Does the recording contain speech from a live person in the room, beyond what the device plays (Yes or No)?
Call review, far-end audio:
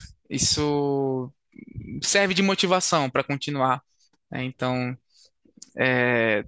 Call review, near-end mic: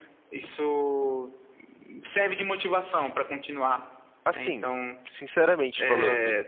Yes